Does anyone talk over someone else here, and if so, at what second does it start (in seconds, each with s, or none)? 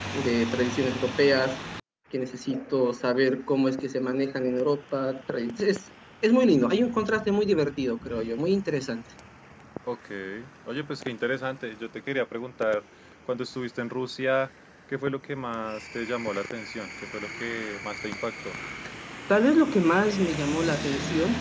none